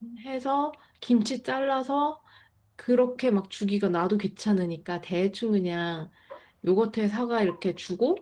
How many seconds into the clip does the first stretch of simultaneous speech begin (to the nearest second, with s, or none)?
none